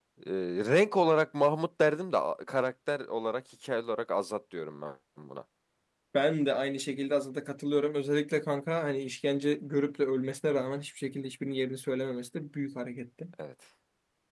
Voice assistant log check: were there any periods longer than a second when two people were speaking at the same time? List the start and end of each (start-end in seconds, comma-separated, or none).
none